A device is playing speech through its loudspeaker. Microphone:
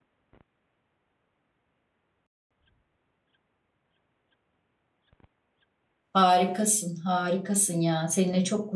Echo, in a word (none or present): none